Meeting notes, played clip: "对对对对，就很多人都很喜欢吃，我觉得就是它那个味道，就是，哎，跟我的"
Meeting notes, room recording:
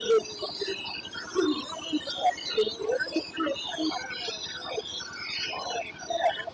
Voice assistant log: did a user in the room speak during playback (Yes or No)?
No